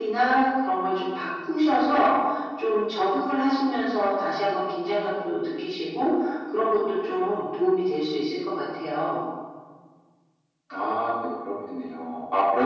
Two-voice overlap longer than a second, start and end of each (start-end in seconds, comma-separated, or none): none